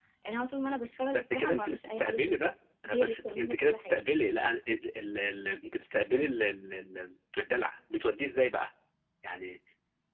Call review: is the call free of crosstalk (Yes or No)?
No